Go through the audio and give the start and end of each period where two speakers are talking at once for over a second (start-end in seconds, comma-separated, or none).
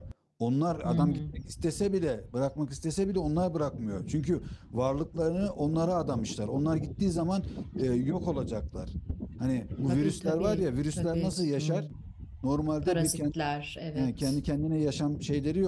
9.9-11.8